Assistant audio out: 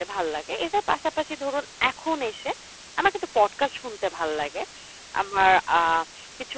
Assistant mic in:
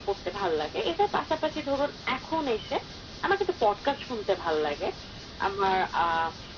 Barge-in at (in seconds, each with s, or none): none